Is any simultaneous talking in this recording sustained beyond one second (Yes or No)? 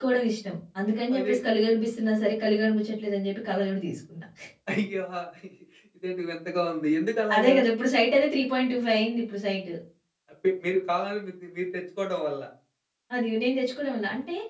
No